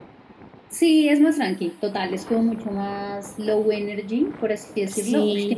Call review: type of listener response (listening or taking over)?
listening